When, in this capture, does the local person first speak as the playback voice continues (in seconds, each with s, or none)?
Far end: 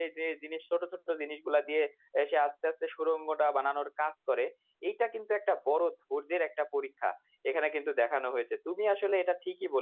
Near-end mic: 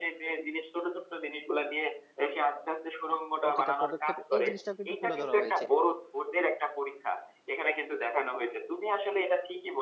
3.4 s